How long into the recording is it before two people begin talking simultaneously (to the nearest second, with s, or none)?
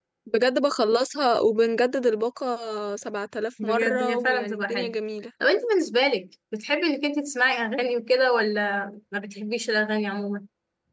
4 s